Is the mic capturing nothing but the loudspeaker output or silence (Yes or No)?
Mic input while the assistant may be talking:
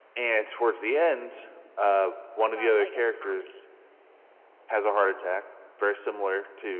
No